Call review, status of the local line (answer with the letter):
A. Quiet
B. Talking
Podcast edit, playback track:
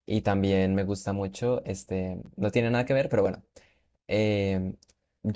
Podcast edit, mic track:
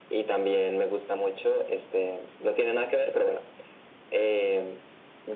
A